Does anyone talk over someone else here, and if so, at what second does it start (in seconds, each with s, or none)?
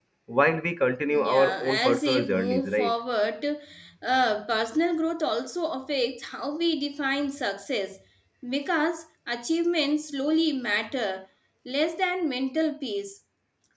1.1 s